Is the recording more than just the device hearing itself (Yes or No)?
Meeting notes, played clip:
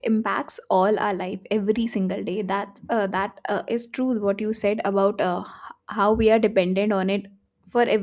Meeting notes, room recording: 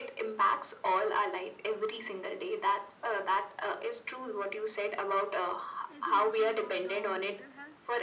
Yes